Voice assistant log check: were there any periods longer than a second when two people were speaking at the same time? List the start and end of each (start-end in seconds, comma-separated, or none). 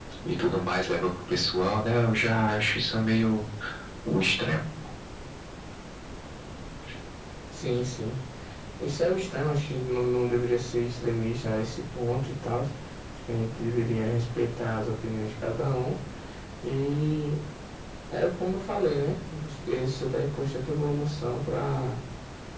none